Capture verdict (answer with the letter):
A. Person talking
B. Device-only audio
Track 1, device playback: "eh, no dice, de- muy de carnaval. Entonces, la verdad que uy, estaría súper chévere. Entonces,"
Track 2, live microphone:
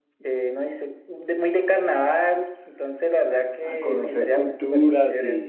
A